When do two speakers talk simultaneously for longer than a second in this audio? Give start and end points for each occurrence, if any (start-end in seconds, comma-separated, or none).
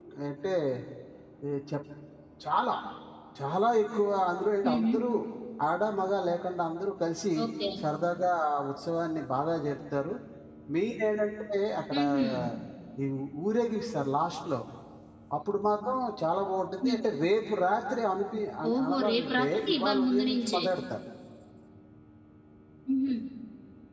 18.7-20.6